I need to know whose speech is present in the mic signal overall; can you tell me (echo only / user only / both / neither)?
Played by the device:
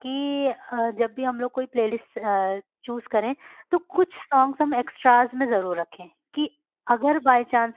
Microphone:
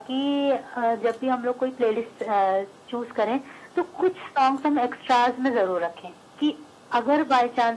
echo only